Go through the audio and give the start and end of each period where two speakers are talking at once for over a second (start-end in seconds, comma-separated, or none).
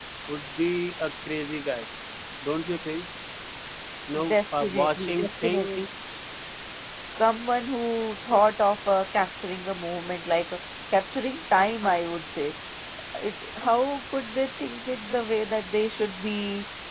4.3-5.9